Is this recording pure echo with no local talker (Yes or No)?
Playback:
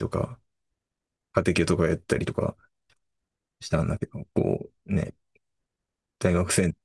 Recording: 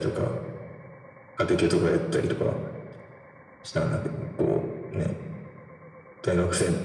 Yes